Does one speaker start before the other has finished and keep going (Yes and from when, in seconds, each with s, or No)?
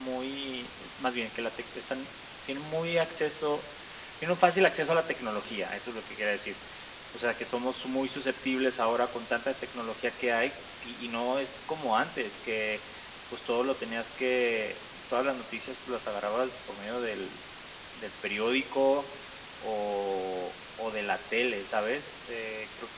No